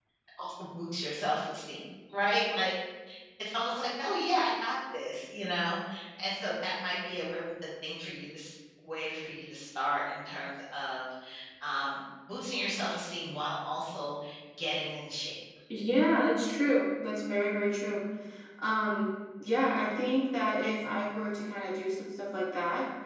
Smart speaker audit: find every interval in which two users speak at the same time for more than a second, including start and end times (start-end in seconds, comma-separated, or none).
none